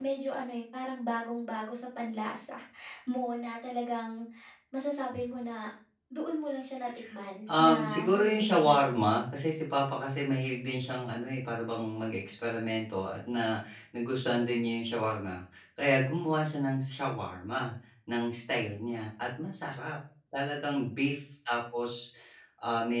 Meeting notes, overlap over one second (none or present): present